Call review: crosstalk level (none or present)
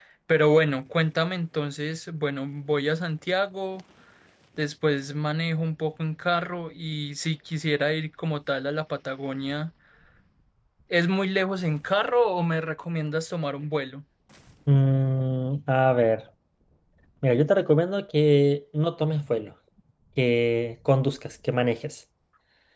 none